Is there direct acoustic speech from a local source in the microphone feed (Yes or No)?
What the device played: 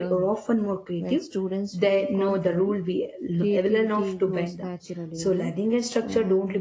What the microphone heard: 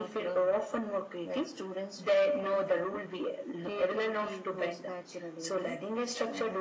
No